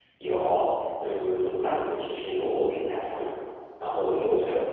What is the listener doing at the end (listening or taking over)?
listening